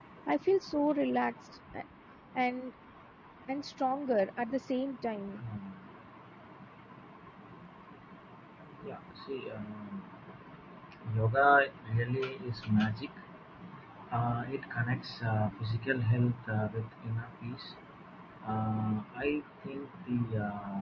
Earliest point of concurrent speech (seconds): none

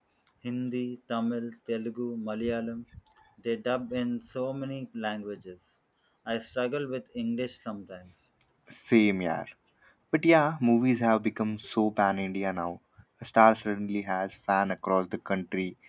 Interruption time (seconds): none

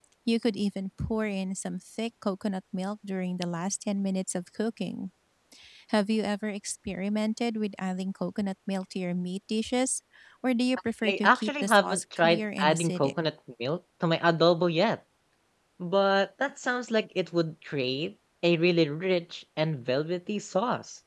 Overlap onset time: 11 s

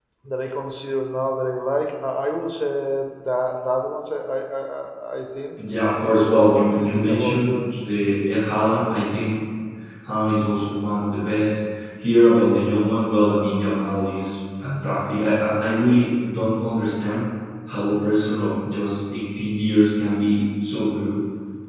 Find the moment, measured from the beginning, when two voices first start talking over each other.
6 s

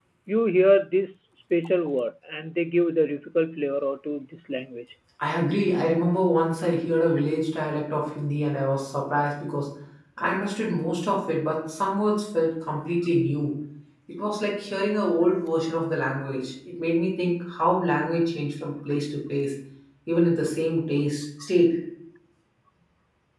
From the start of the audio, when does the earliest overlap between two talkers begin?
none

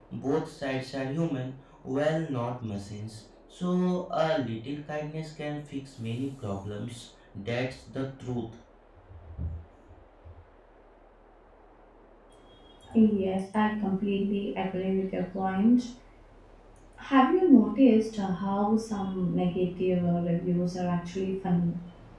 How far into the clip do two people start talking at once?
none

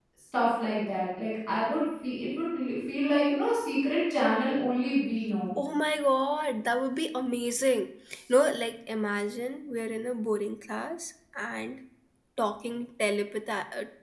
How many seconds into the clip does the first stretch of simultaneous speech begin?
none

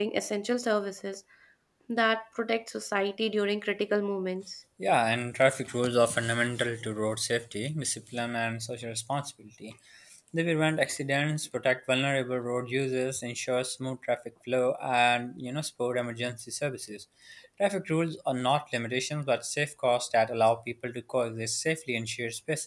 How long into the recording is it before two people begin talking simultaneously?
none

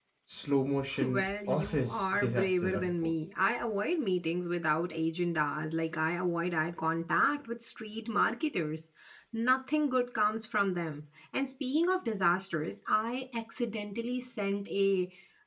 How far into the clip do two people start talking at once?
1 s

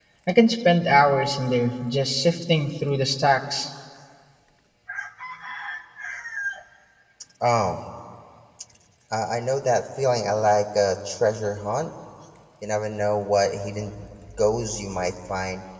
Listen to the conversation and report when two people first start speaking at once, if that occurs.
none

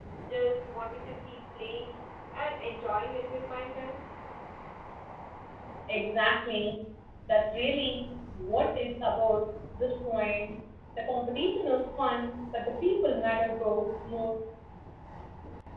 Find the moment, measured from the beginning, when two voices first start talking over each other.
none

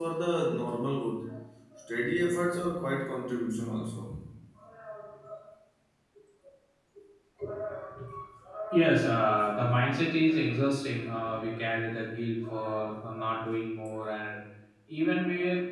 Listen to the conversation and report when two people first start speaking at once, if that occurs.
none

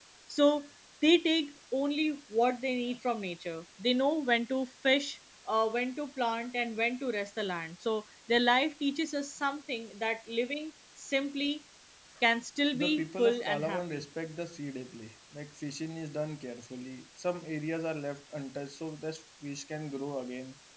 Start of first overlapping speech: 13 s

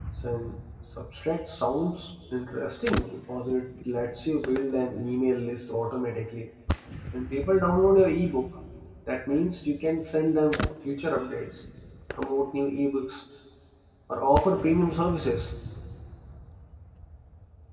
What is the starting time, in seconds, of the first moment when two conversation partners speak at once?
none

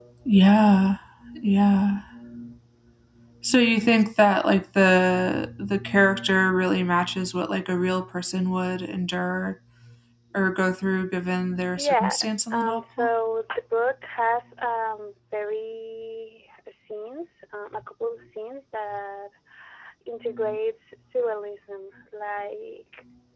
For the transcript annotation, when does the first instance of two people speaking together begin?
12 s

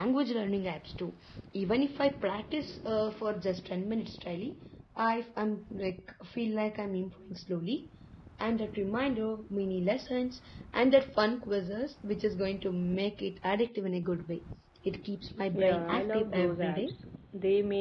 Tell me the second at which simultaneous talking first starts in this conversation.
16 s

